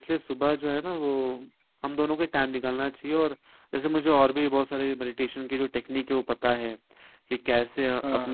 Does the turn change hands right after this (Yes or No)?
No